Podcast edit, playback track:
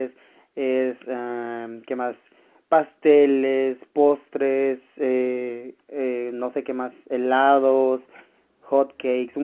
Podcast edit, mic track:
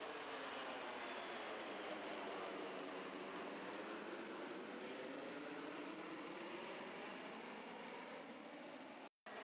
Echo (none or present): none